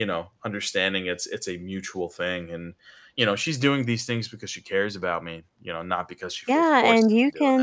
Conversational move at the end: taking over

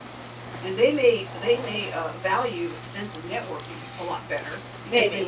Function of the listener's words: listening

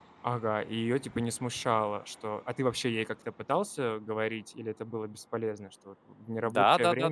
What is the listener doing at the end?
taking over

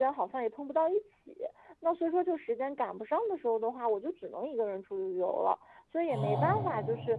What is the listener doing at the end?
listening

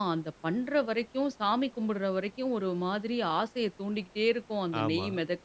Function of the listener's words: listening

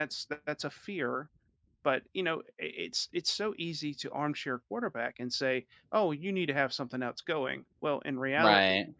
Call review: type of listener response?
listening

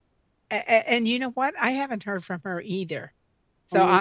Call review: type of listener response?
listening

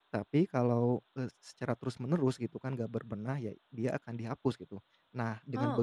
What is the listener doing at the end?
listening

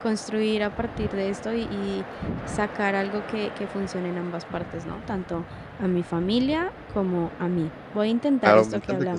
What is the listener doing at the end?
taking over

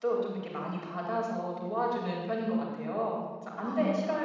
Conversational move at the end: listening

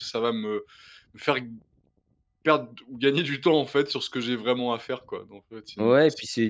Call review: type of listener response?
taking over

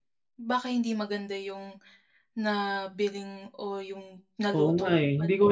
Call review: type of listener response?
taking over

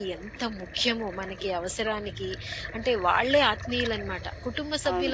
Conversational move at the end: listening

